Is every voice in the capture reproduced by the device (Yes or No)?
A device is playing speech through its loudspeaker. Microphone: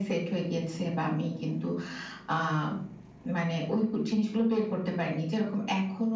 Yes